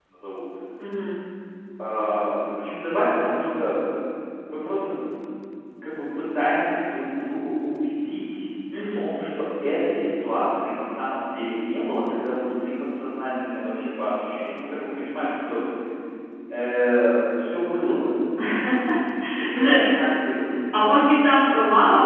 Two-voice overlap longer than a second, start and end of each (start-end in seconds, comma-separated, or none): none